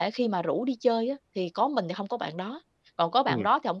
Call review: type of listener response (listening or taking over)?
listening